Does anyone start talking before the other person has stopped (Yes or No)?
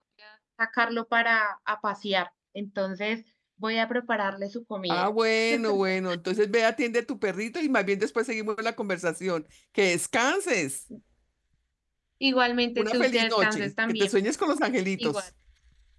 Yes